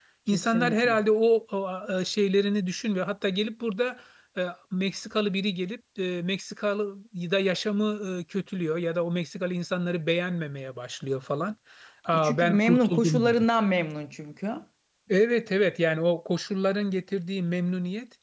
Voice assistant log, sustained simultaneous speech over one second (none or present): present